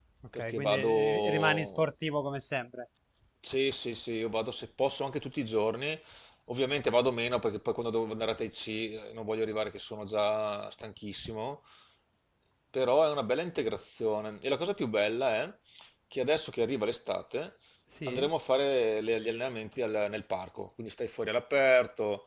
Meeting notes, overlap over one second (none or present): present